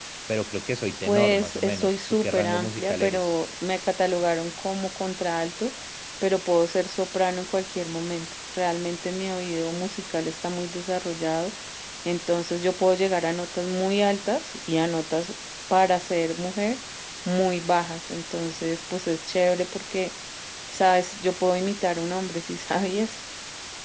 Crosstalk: present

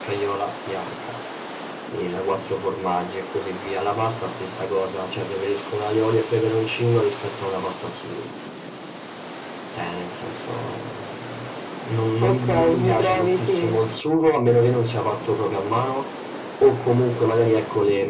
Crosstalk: present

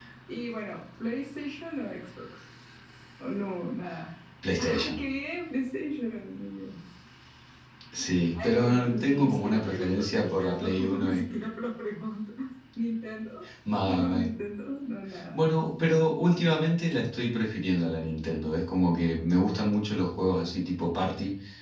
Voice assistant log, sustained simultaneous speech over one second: present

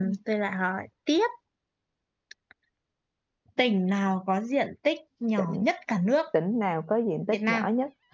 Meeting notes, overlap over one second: none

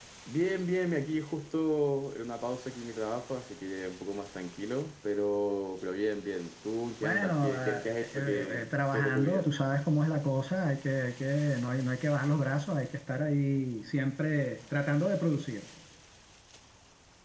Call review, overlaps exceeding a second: present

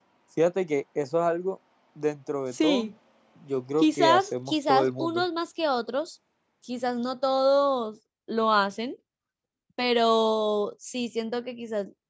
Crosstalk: present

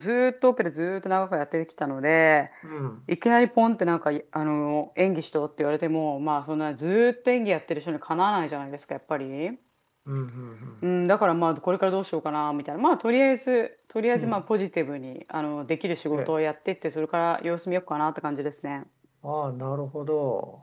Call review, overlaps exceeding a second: none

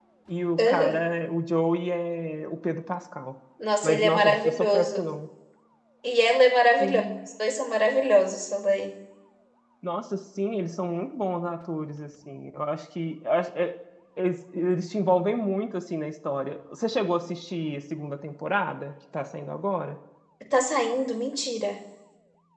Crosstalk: present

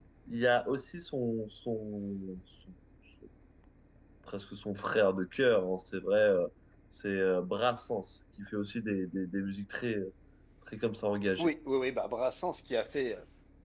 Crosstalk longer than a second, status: none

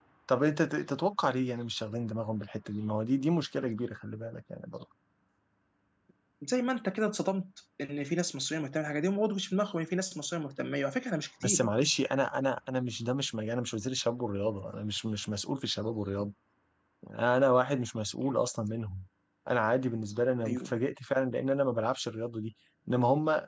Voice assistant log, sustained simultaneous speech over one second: none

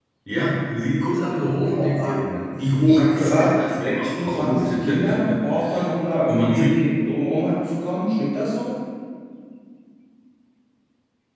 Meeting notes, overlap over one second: present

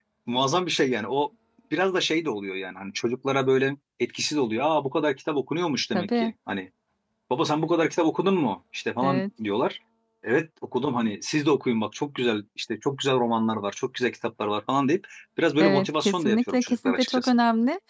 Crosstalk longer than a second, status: present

